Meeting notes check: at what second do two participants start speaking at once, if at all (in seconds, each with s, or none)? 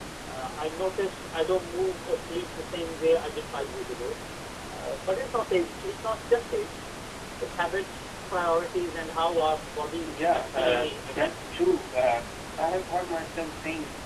10.0 s